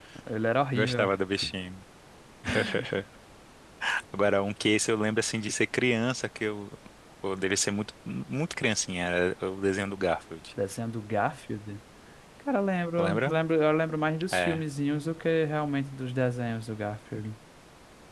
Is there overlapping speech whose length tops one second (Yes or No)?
No